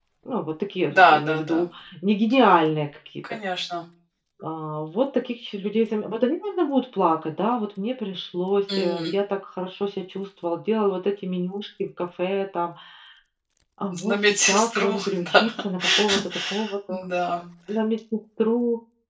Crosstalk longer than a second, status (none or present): present